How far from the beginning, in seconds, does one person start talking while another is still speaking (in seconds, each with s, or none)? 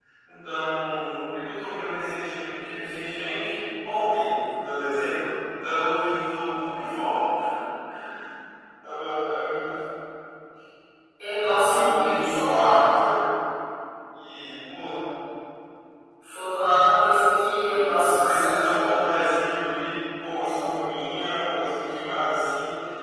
11.7 s